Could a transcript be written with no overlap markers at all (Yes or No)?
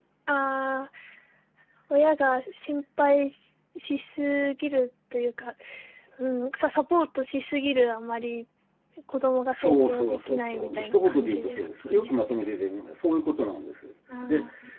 No